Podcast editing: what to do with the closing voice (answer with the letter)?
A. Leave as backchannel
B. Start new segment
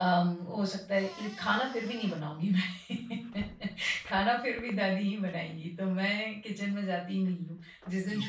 A